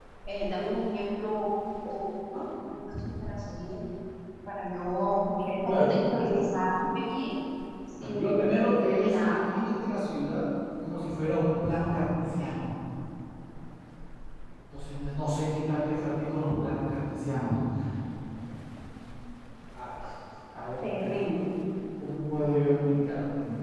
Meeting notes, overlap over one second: present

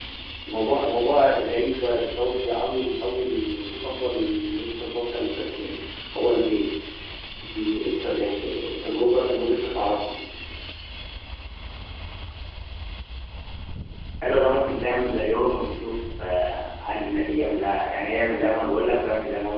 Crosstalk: none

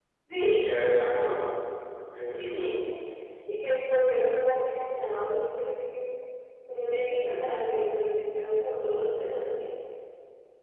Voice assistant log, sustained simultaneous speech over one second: none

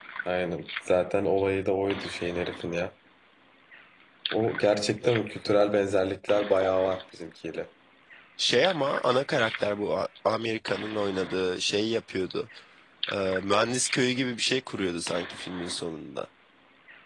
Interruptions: none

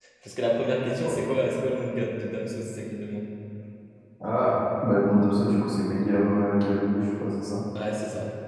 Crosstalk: none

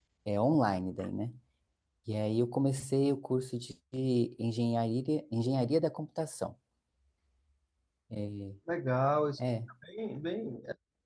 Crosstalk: none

